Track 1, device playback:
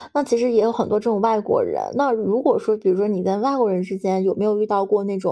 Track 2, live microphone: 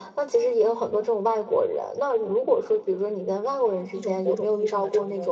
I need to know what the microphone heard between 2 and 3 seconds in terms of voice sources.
echo only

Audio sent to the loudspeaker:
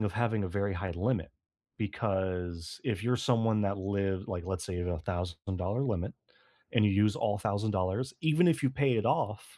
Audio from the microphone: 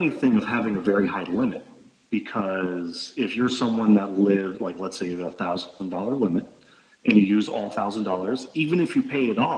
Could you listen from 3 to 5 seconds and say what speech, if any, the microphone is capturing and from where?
echo only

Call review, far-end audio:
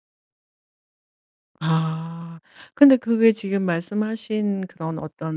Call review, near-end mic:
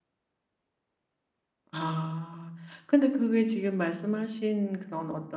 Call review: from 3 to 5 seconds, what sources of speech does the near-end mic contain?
echo only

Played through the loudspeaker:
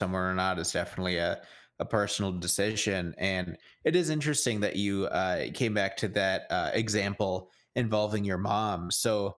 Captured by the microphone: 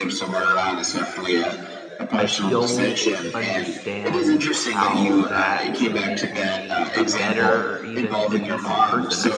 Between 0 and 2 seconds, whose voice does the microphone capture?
echo only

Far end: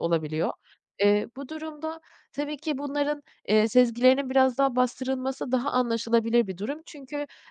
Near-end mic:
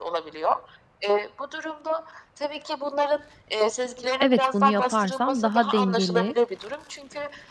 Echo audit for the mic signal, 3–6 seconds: both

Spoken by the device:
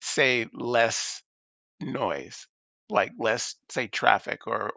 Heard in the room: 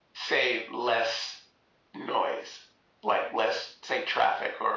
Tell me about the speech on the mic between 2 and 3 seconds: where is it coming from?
echo only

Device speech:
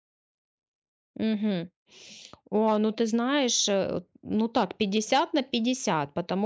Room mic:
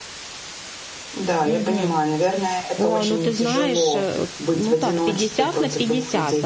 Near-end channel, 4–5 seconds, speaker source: both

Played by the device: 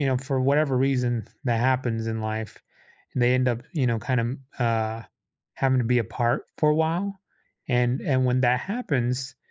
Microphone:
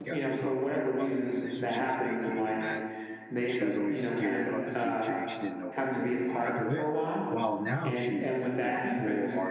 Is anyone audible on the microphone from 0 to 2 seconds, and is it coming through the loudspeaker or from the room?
both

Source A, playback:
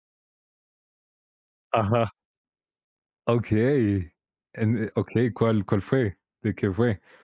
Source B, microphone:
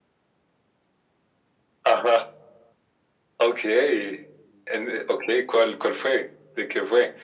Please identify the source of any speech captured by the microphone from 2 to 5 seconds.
echo only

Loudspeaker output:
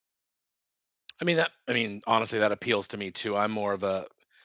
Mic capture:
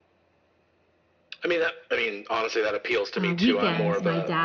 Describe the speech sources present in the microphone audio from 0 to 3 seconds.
echo only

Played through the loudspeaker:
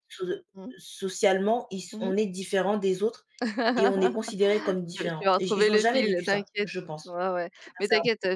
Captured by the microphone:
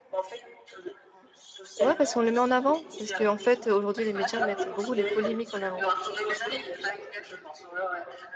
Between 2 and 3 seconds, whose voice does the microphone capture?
both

